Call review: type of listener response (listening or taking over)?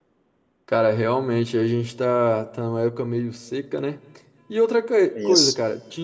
listening